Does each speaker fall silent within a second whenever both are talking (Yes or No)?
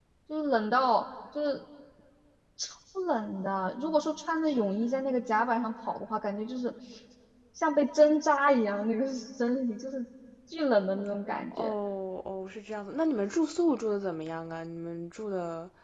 Yes